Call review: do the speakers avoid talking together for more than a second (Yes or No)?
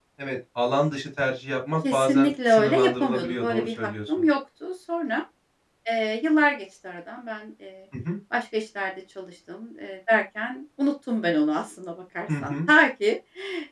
No